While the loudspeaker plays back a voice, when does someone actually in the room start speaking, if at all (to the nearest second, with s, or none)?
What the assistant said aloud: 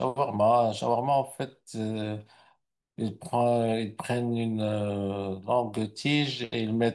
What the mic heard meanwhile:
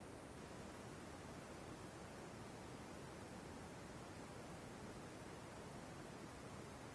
none